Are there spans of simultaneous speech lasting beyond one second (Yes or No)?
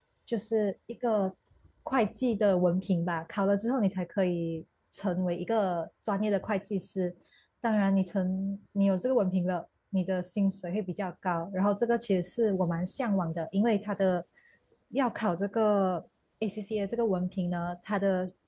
No